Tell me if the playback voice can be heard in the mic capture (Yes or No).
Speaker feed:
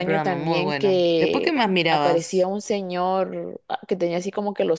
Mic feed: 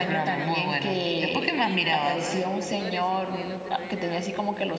Yes